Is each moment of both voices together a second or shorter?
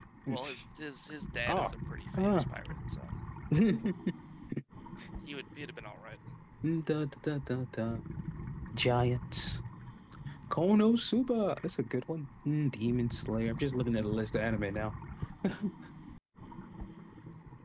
Yes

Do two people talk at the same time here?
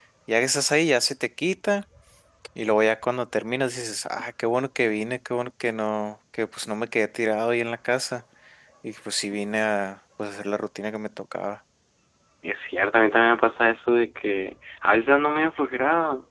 No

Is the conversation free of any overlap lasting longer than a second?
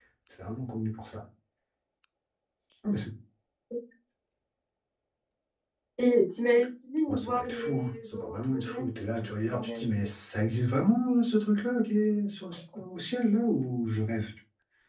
No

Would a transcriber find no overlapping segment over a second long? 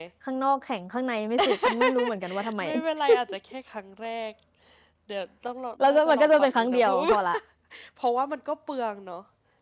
No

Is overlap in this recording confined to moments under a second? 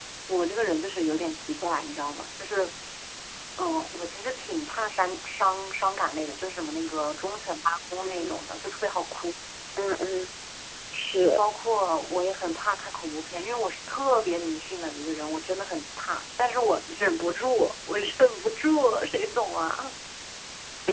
Yes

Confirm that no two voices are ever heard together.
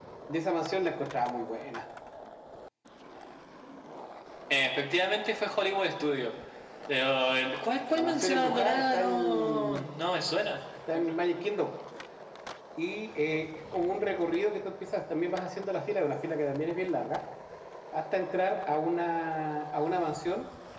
No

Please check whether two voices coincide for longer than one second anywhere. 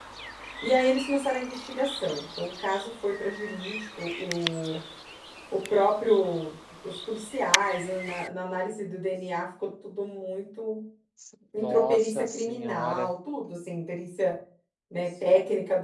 Yes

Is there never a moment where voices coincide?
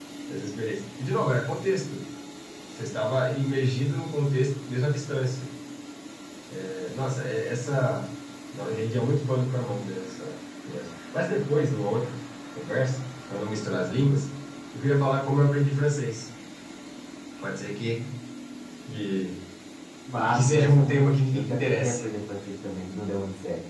No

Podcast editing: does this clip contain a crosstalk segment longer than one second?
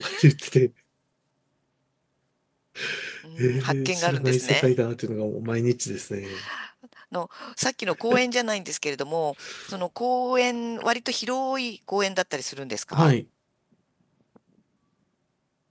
Yes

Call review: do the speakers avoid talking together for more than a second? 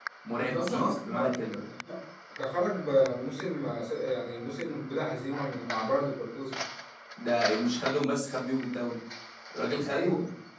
No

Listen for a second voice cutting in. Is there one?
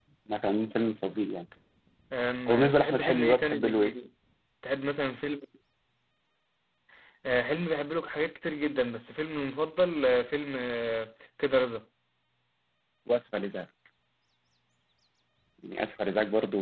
Yes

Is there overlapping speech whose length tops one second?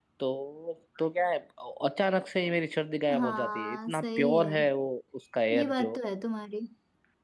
Yes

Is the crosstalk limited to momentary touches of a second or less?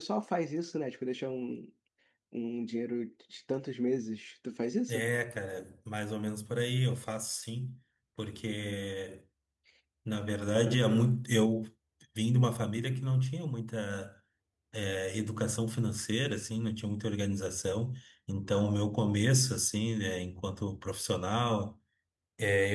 Yes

